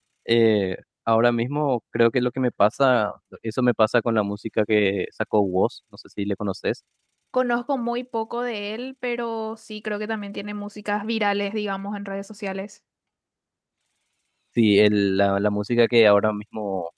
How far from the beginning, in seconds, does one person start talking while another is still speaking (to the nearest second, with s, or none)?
none